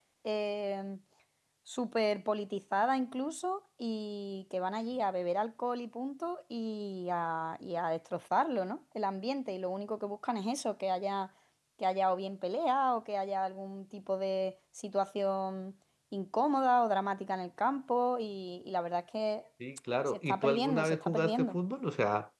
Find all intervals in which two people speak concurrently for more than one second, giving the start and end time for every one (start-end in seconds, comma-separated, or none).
20.1-21.6